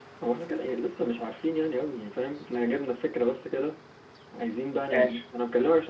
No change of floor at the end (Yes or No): Yes